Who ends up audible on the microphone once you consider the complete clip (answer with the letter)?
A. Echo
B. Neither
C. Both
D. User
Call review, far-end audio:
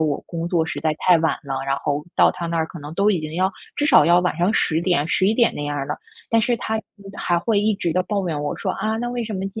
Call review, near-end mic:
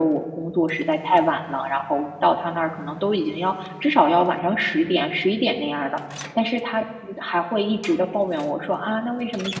A